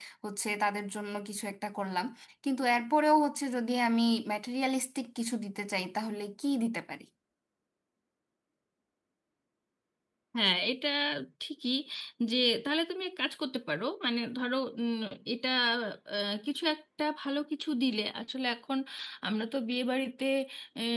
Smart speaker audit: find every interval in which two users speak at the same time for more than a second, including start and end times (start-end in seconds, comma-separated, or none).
none